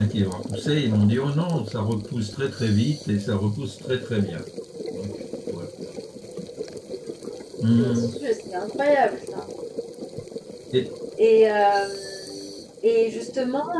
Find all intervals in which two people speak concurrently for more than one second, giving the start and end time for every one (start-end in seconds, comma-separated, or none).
none